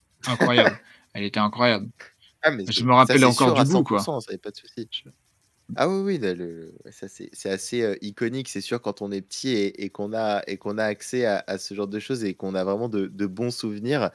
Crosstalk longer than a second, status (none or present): present